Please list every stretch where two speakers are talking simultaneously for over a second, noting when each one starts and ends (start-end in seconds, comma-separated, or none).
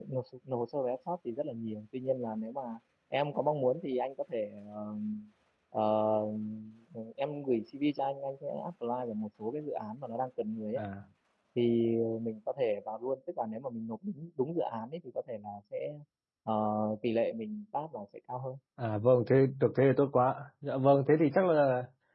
none